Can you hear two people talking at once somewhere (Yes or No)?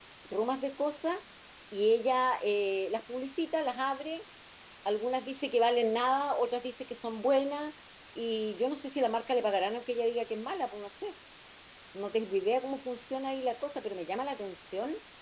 No